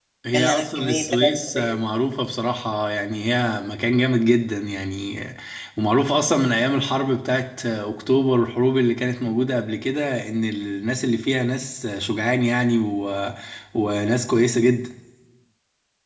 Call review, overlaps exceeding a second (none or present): present